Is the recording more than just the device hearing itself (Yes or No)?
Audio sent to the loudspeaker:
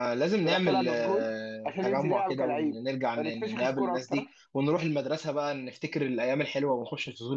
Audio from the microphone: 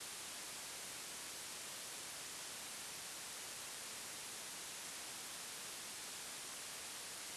No